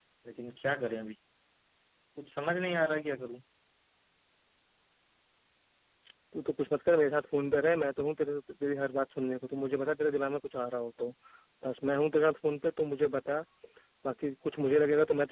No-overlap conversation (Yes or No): Yes